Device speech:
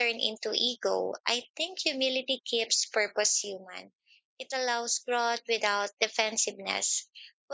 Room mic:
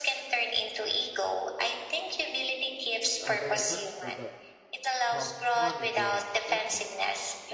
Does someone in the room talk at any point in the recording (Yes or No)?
Yes